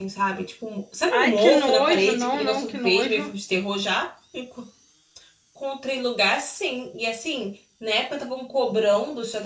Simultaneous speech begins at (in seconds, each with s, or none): 1.1 s